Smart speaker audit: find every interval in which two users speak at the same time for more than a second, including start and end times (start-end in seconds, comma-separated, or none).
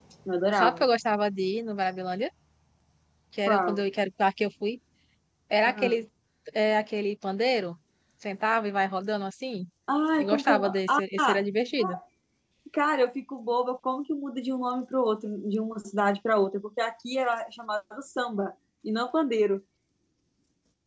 10.2-11.4